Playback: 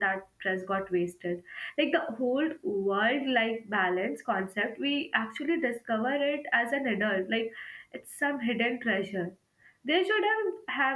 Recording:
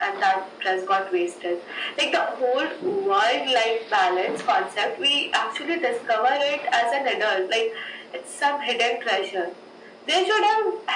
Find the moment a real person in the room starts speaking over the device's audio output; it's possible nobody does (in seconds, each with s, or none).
none